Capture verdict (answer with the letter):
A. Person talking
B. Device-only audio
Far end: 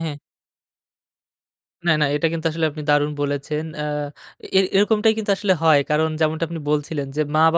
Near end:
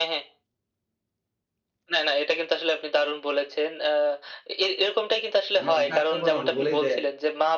A